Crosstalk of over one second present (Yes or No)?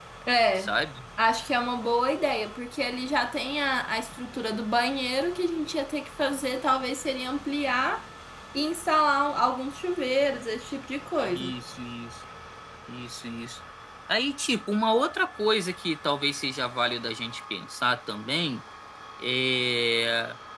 No